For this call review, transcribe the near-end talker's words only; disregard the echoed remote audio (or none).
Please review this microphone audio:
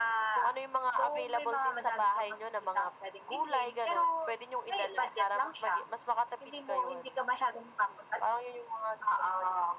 none